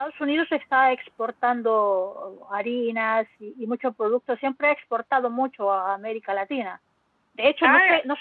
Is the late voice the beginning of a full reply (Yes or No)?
No